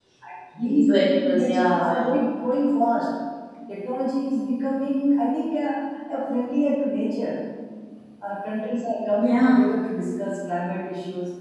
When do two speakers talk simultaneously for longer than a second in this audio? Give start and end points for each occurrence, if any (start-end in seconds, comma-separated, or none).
0.6-2.0